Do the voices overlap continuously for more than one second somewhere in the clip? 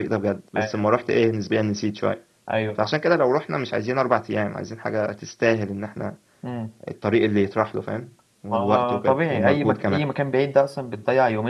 Yes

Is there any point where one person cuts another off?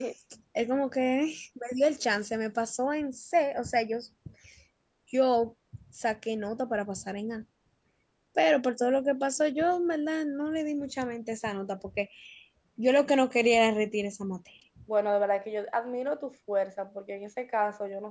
No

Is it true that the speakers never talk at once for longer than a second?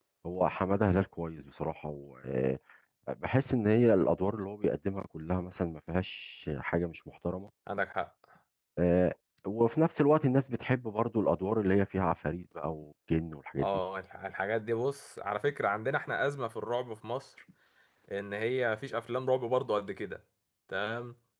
Yes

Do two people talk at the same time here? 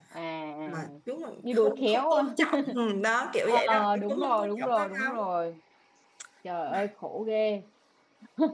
Yes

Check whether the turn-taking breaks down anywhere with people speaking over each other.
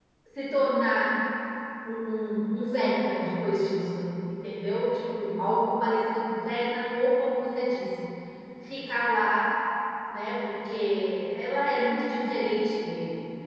No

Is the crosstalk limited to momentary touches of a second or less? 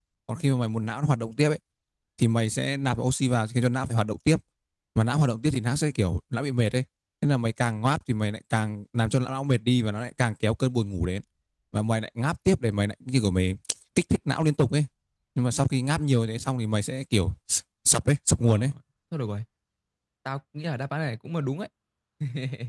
Yes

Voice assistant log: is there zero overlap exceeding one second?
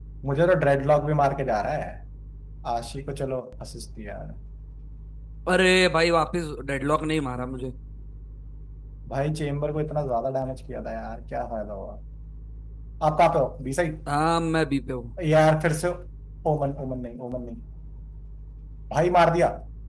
Yes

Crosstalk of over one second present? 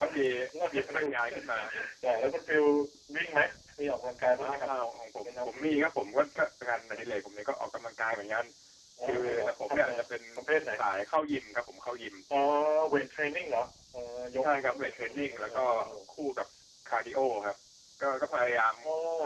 Yes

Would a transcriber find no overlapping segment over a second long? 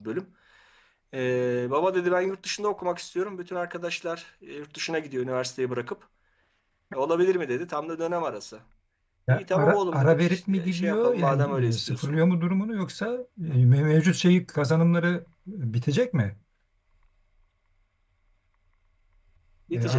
No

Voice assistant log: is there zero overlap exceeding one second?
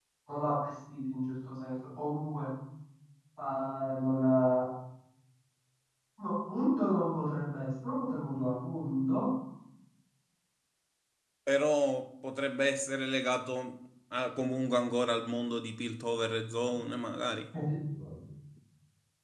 Yes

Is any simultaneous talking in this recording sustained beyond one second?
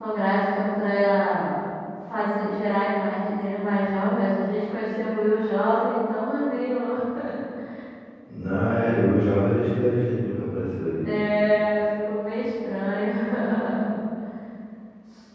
No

